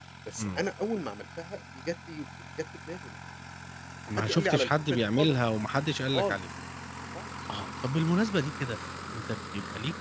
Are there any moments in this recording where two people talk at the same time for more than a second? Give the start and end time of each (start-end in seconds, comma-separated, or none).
4.1-5.4